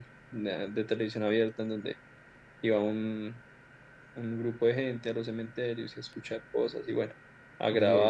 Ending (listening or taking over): taking over